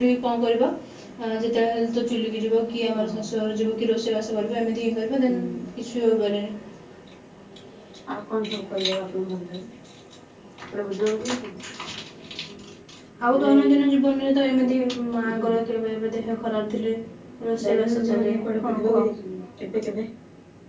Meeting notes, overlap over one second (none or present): present